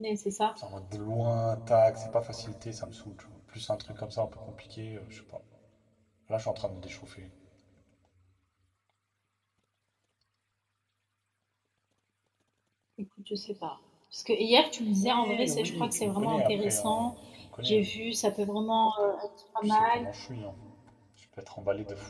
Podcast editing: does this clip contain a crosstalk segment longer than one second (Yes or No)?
Yes